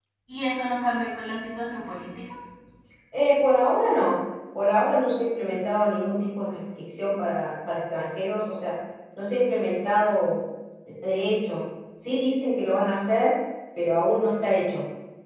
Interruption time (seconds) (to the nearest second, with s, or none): none